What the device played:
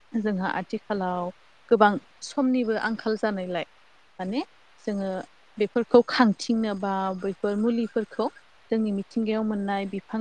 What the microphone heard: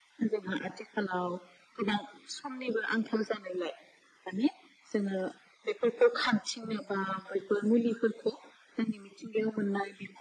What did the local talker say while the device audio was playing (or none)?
none